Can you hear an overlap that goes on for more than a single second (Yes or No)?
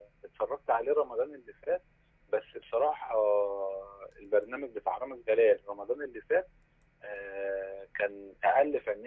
No